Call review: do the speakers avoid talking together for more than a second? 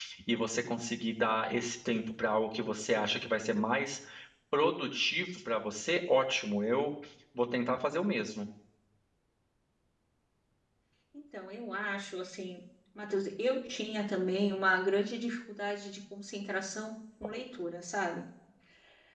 Yes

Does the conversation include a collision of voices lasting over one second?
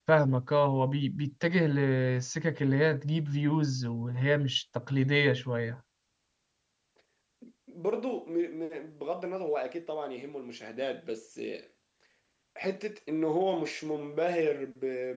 No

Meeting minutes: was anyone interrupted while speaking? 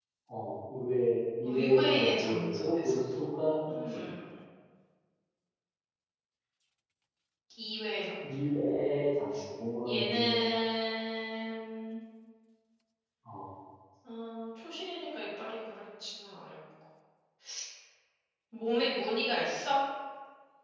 Yes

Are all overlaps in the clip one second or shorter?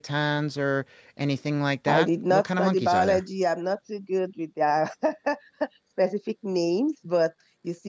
No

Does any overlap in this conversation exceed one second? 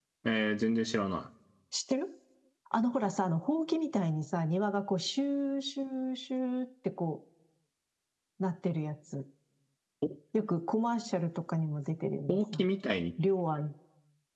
No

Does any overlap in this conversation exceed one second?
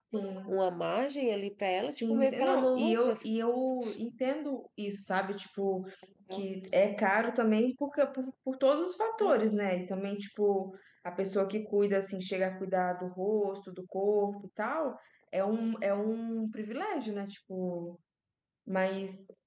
Yes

